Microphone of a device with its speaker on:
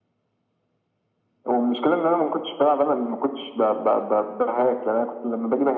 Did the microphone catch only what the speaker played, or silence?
Yes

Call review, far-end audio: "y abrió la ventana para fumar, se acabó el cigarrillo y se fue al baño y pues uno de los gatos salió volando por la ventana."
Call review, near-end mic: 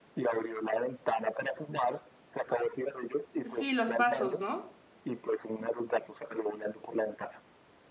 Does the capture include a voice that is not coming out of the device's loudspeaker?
Yes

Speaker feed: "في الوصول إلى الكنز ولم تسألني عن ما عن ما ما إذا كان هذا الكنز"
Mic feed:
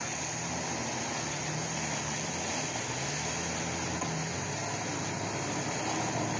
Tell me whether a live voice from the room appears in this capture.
No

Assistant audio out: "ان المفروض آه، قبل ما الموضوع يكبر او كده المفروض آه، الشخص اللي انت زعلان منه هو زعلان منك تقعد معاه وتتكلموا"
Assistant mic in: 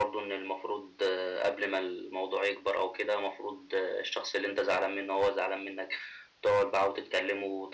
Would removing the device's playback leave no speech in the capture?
Yes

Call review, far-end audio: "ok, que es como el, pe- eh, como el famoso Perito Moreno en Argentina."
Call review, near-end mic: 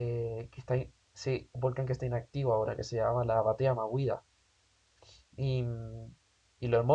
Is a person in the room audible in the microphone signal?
Yes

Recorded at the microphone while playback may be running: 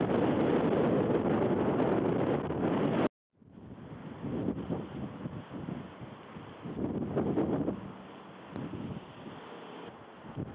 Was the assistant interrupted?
No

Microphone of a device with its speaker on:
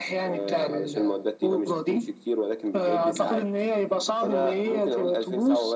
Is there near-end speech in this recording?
No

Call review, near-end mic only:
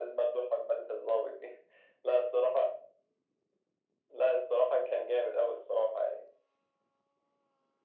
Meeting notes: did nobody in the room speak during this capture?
Yes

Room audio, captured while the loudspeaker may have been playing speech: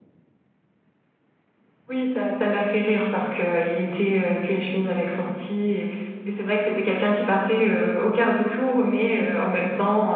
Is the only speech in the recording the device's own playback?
No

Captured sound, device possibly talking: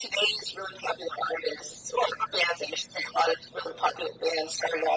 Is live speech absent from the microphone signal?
Yes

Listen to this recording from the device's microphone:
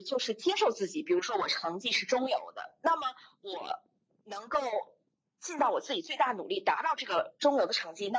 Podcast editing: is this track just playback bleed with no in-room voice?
Yes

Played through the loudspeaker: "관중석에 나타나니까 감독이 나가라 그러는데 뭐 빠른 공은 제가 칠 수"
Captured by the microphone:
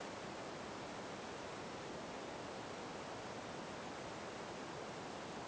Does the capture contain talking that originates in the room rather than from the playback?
No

